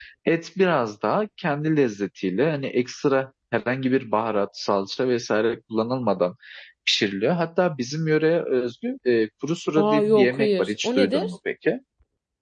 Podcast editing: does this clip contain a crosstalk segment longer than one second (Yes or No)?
Yes